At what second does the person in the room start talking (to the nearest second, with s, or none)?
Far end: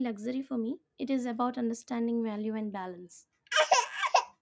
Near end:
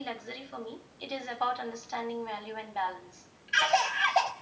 none